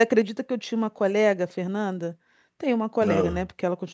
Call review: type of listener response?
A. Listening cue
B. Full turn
A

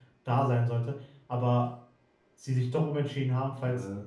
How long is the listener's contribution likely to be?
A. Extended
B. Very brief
B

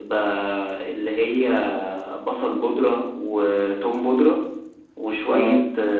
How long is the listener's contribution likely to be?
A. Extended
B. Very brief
B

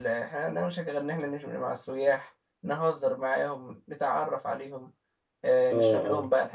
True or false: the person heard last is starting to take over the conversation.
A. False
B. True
A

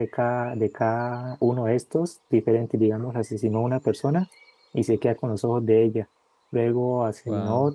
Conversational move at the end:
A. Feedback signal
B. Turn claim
A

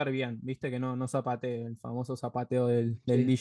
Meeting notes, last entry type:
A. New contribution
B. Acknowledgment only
B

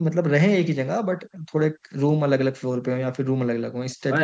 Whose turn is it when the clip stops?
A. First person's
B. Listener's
B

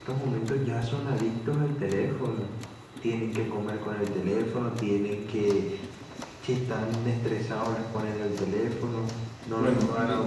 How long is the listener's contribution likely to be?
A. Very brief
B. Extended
A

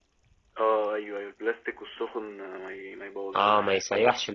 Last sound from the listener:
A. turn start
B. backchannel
A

